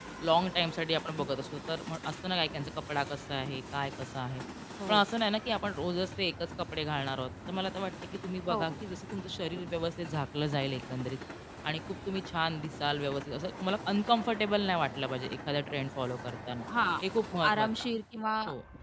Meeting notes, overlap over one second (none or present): none